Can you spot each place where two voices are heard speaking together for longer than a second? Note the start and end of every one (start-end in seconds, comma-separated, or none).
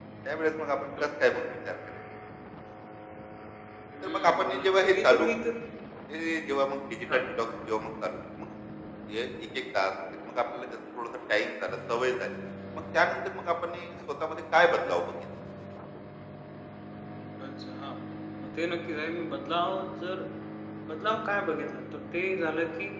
4.0-5.3